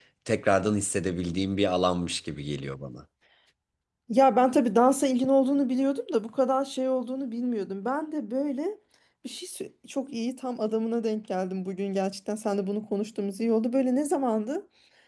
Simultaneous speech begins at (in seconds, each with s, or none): none